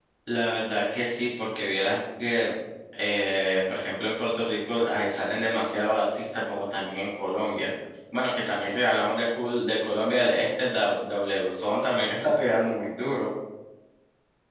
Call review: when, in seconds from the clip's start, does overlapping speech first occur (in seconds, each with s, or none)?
none